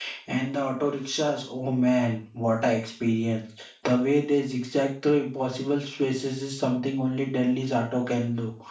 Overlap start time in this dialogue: none

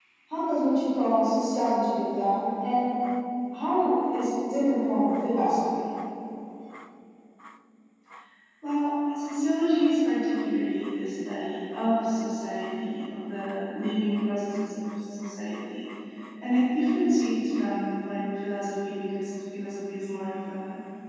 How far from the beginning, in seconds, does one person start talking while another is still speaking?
none

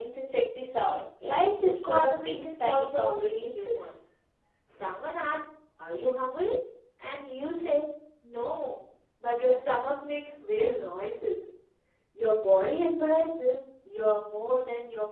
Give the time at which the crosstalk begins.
2 s

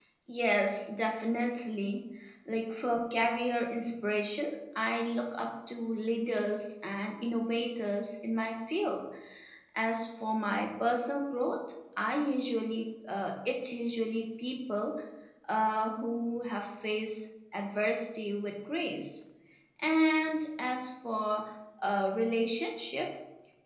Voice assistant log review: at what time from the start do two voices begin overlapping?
none

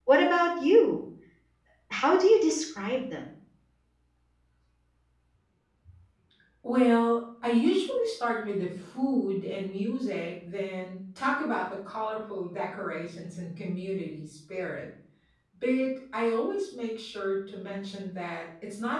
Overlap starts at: none

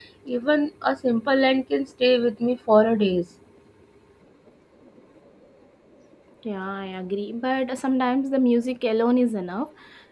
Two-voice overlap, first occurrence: none

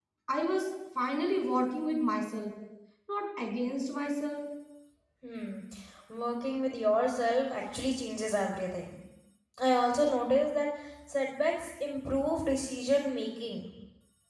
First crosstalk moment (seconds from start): none

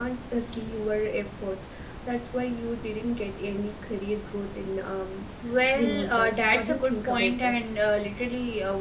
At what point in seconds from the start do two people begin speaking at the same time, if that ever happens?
6 s

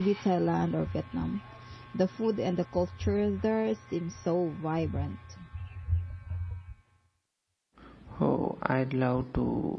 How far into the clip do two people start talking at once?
none

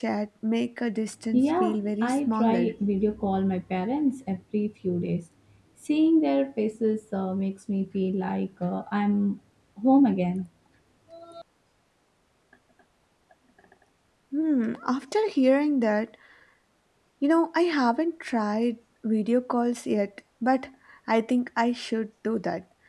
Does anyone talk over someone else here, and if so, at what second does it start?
1 s

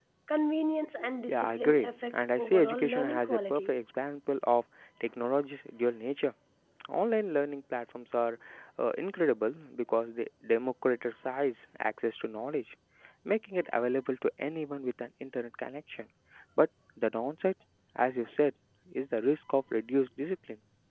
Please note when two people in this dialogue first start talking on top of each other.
1 s

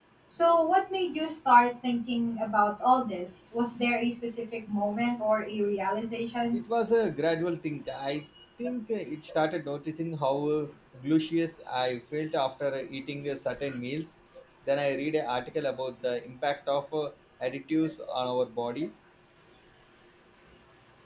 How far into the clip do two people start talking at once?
none

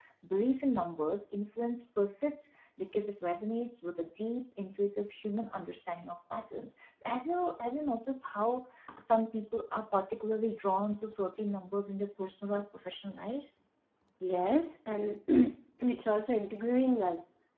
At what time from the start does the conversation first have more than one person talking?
none

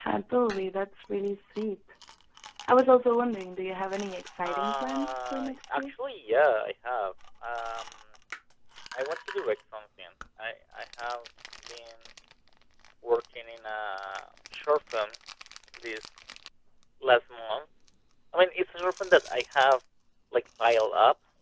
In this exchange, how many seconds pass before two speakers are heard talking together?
4 s

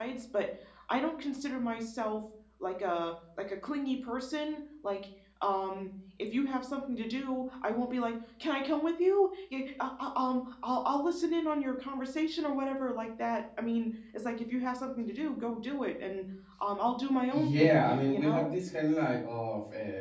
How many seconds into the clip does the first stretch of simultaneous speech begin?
17 s

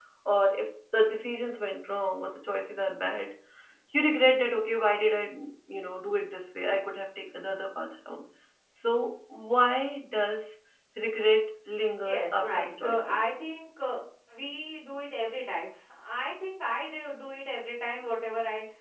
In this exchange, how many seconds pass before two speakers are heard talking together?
12 s

